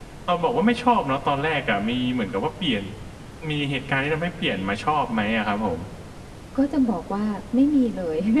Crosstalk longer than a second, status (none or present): none